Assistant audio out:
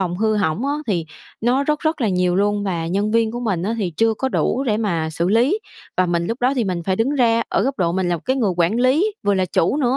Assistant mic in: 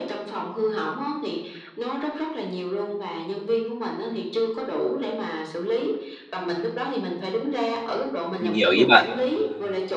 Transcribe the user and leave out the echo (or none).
Mình hiểu ý bạn.